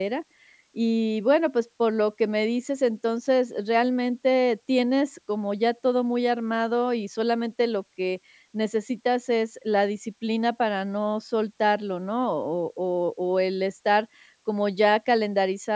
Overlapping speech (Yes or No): No